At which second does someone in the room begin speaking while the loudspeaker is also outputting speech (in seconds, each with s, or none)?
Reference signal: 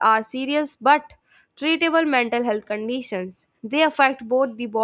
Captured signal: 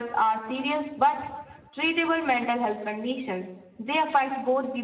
none